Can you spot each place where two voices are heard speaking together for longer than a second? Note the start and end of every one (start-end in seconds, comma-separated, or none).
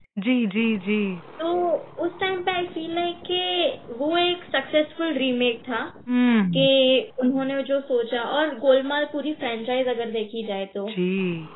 none